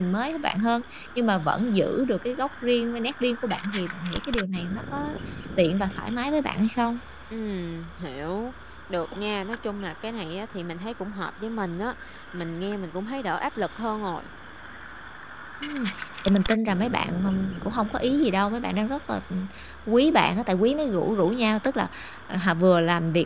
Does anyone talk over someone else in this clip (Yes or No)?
No